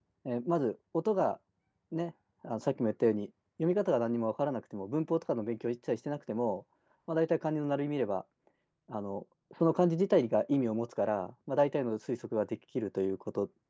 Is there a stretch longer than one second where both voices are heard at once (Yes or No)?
No